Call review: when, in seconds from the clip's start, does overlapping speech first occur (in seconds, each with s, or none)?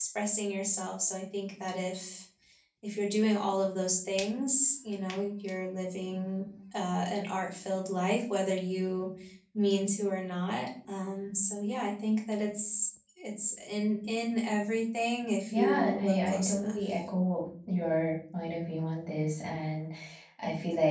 15.5 s